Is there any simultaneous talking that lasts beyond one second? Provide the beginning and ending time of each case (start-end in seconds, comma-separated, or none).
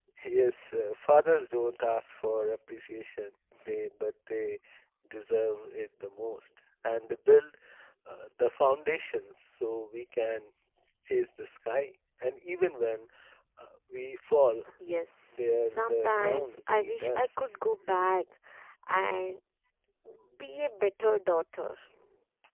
15.4-17.3